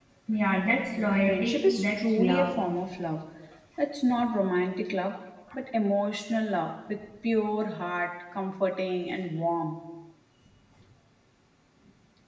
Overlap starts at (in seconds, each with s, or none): 1.3 s